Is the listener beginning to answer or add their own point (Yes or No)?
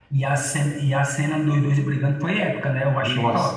Yes